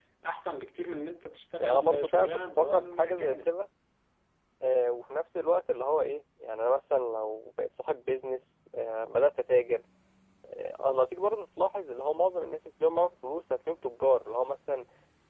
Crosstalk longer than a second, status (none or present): present